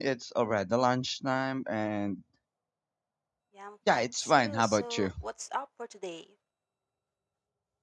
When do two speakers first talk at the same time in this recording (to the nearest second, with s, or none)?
4 s